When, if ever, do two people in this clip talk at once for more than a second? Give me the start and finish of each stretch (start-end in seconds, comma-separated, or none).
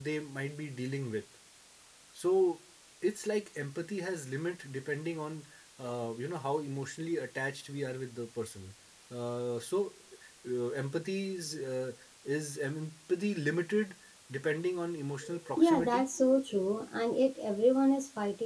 none